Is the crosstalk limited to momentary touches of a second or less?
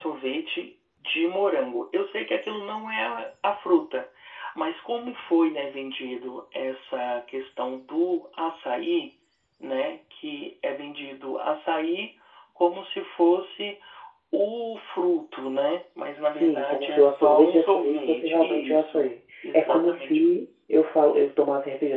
No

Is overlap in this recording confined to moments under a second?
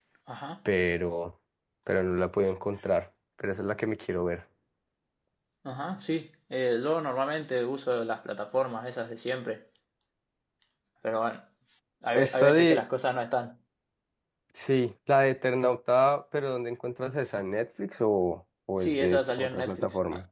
No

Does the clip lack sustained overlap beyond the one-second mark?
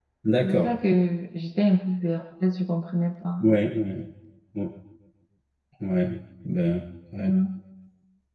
Yes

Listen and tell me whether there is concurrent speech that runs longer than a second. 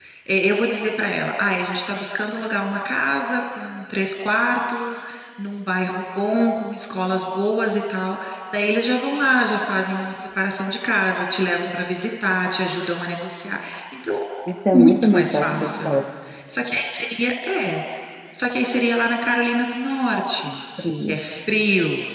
Yes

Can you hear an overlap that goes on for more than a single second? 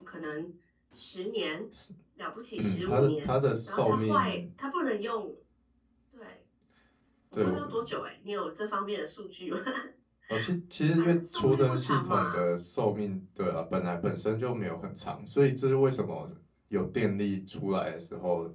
Yes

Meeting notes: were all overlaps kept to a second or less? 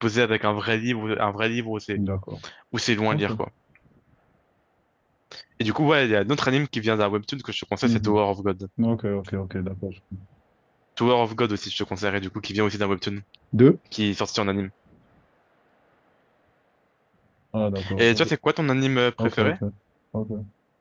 Yes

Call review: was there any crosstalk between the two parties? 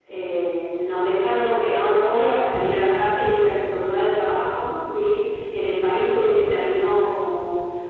No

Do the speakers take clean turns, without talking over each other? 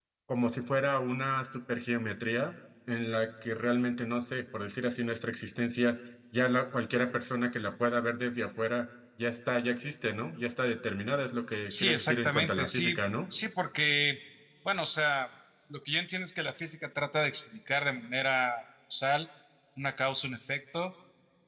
No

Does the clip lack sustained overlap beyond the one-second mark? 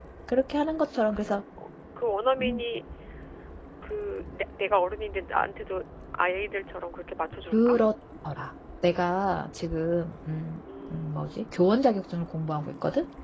Yes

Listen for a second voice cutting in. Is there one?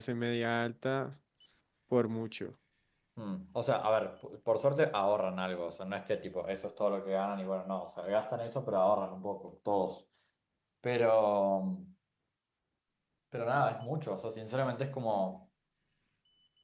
No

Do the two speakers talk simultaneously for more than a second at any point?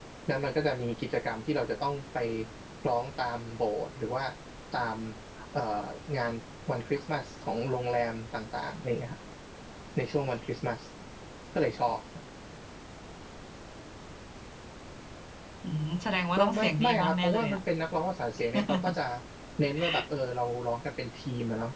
Yes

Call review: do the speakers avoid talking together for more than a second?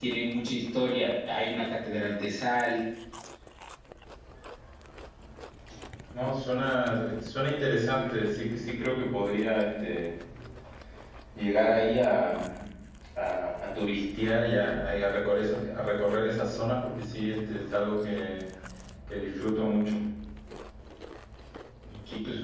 Yes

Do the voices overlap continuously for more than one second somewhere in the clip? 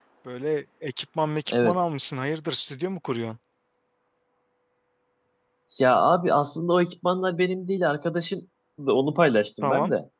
No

